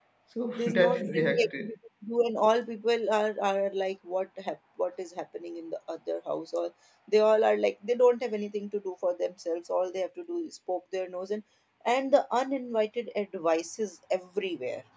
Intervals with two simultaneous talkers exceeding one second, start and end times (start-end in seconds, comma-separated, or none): 0.6-1.8